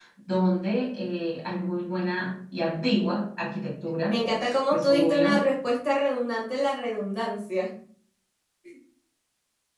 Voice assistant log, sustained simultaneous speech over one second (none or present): present